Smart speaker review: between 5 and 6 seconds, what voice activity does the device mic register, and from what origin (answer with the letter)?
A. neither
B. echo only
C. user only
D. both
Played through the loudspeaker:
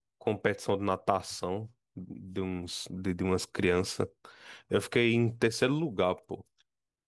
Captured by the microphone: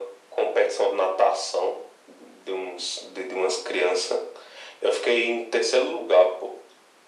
B